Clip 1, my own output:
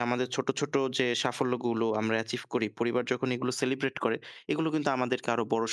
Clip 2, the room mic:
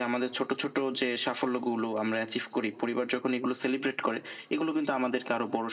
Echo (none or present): present